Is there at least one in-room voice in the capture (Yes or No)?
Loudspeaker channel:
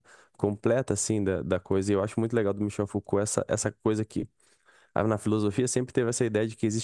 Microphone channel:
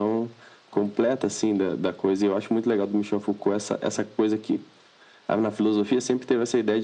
No